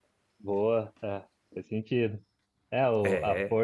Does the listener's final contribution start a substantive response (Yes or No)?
No